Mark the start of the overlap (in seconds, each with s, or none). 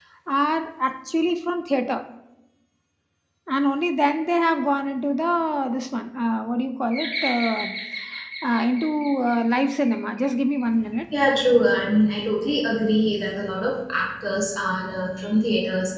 none